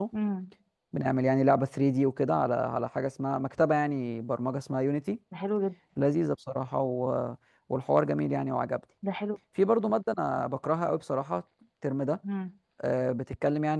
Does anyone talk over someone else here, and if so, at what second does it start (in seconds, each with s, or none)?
none